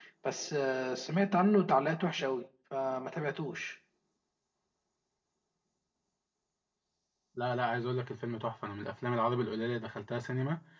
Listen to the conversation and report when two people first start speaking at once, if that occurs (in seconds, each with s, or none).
none